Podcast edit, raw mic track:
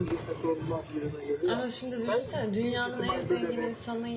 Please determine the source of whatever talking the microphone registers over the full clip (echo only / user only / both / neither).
both